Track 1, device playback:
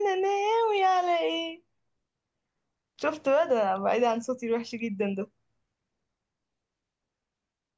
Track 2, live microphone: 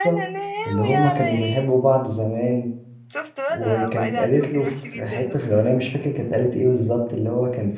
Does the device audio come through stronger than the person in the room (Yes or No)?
No